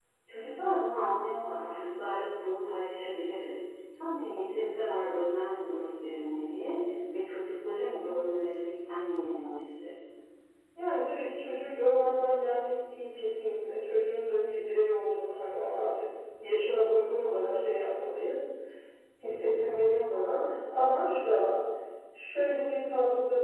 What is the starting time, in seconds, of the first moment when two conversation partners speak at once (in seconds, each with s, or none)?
none